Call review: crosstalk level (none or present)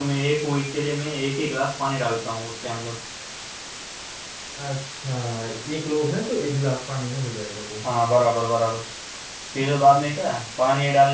none